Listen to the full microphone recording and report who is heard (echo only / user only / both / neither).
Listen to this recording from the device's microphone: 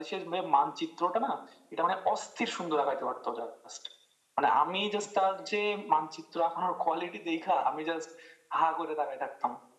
echo only